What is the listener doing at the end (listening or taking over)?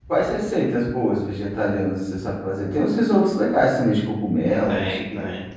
taking over